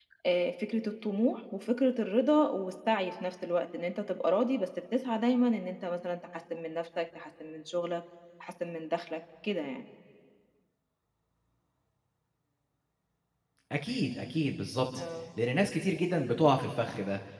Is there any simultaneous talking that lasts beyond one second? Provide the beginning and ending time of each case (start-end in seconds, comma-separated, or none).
none